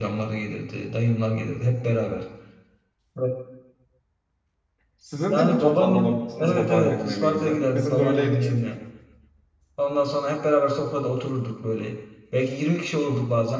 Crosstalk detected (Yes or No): Yes